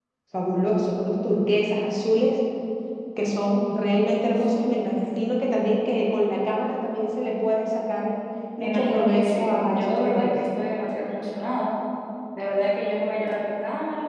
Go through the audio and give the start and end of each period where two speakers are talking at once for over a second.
8.6-10.3

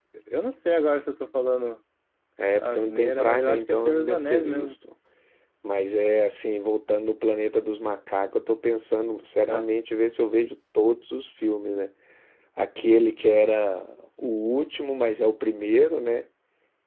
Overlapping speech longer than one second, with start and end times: 2.6-4.8

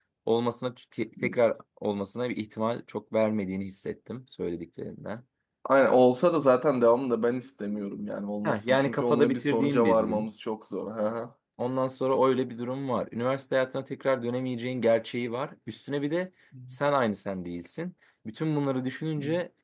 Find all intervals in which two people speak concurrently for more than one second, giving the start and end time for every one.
8.4-10.3

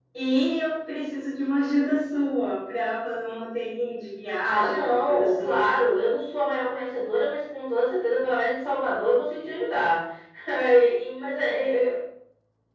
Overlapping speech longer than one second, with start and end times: 4.4-5.6

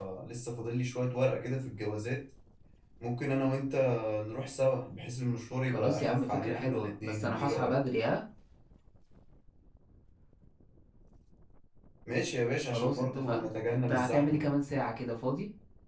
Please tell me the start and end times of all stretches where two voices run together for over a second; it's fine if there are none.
5.7-7.8, 12.7-14.5

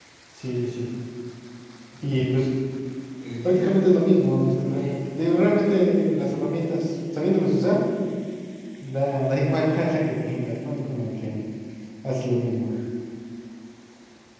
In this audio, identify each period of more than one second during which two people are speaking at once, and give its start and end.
none

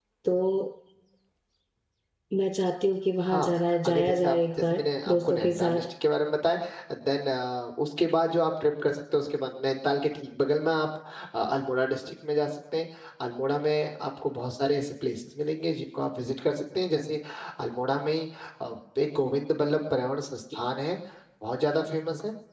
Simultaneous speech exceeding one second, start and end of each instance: 3.3-5.8

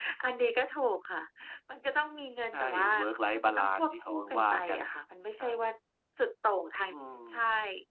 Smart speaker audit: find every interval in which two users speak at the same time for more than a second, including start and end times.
3.3-4.8

